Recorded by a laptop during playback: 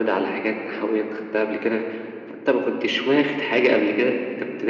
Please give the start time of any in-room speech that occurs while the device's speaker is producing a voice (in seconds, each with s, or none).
none